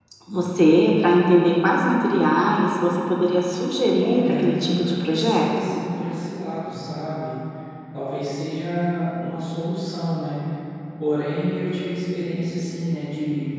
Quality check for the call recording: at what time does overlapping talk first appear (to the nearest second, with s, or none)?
4 s